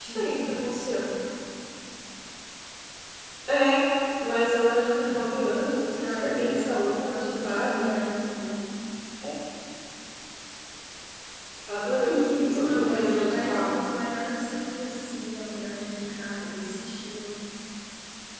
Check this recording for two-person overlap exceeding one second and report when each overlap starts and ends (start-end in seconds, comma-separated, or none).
6.0-7.9, 12.1-13.8